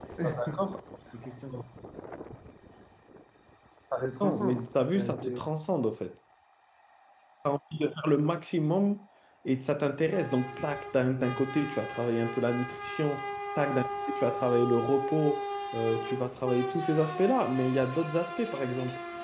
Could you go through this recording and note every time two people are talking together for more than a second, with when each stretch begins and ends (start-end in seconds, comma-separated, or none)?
4.0-5.4